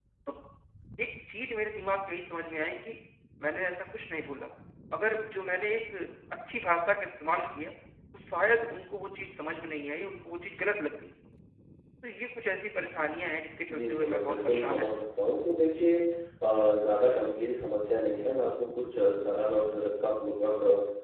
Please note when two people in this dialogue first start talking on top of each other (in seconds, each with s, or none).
13.7 s